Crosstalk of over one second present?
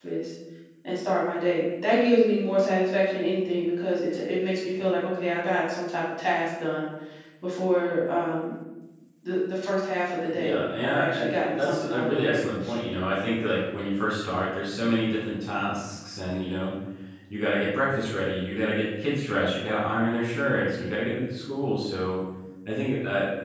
Yes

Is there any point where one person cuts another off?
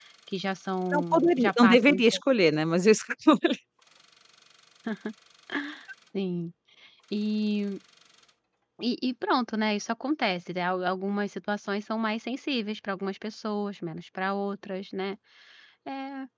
Yes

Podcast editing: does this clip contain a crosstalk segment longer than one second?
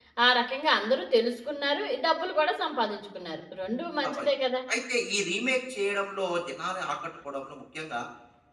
No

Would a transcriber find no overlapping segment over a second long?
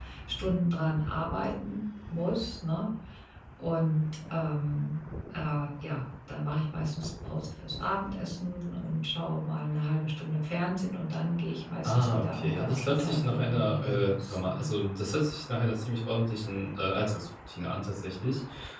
No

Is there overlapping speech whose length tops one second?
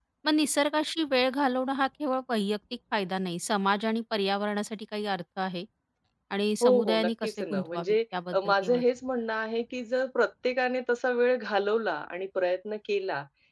Yes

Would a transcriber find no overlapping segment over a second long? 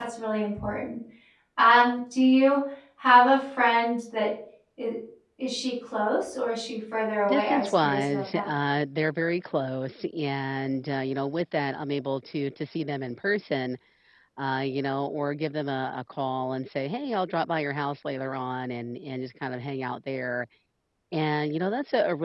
No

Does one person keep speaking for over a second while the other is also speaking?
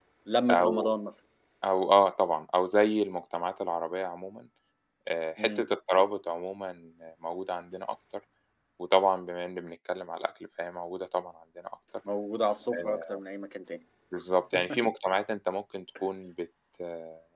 No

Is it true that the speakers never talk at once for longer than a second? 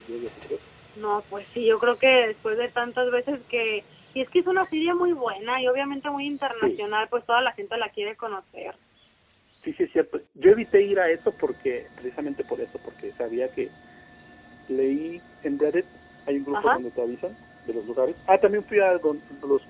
Yes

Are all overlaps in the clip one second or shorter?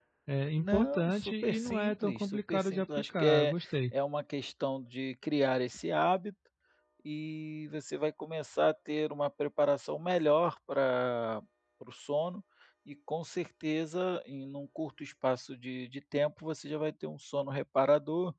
No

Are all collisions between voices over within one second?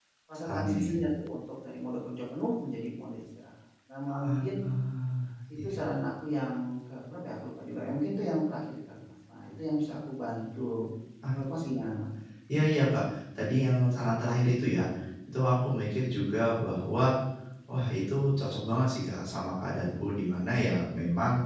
Yes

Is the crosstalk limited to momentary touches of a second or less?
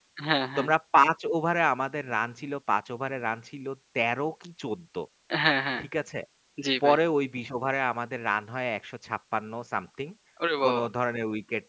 Yes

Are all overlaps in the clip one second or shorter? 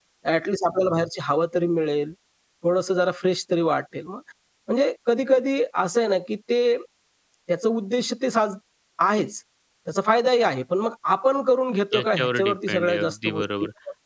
No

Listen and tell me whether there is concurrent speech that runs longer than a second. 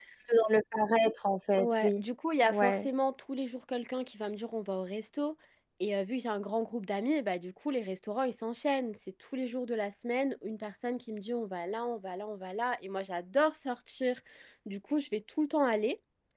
No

